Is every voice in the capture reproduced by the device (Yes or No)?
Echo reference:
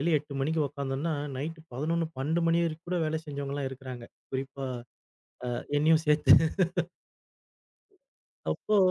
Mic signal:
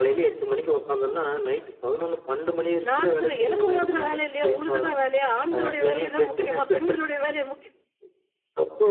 No